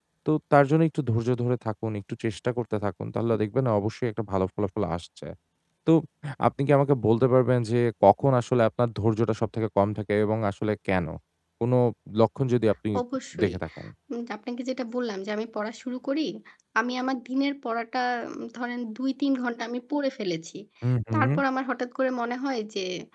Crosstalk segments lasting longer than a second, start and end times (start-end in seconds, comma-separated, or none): none